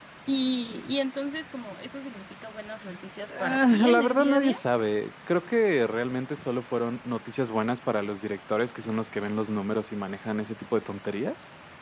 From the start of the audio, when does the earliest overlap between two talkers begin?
3.2 s

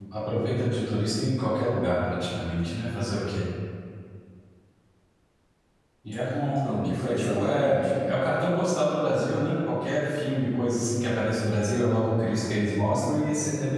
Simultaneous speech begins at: 6.8 s

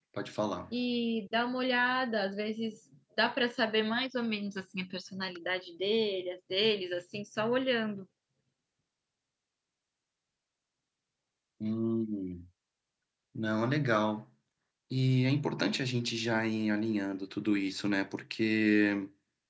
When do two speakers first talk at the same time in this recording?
none

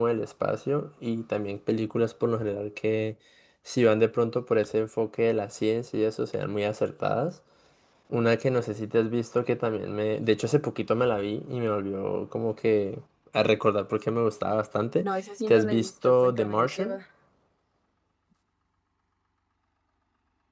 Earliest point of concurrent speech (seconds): 15.5 s

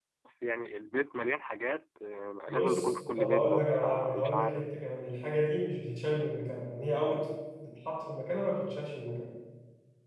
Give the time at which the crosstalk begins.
2.5 s

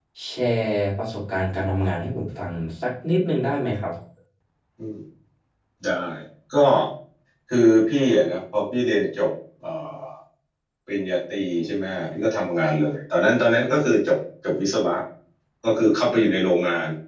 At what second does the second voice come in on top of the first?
none

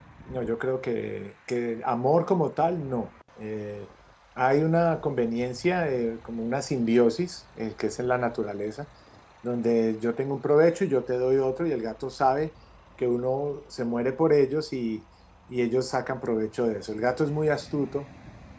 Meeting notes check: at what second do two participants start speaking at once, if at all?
none

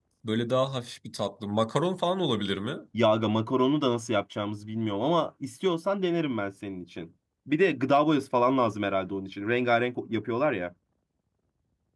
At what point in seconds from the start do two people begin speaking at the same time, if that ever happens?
none

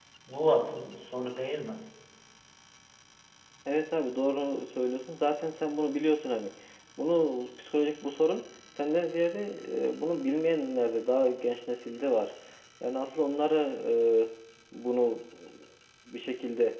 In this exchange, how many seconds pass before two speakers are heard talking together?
none

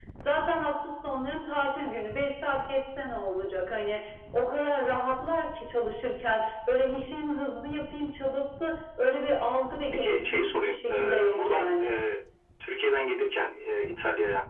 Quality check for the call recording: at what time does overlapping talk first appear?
9.9 s

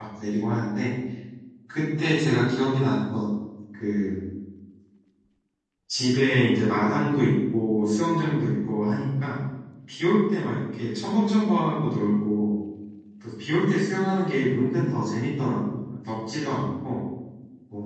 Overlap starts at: none

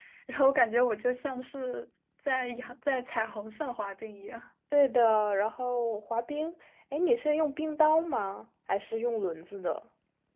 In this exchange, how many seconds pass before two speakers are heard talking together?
none

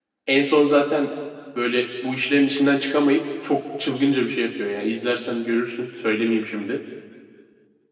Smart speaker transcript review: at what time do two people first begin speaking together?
none

